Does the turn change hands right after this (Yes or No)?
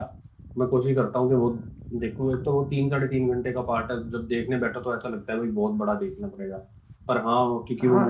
Yes